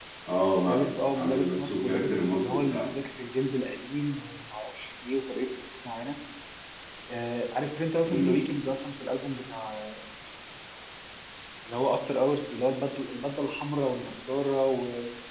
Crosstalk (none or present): present